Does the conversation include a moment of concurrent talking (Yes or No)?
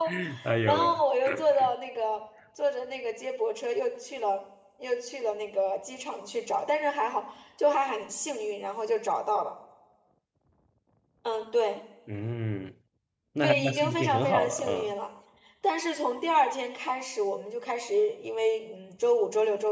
Yes